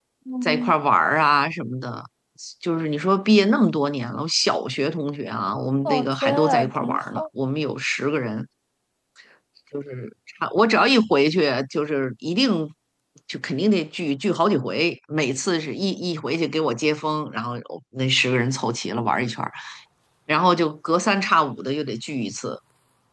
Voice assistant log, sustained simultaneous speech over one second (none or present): present